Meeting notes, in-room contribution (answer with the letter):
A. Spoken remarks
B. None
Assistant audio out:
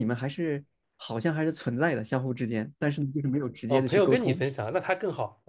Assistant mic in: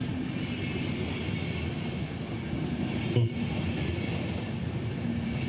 A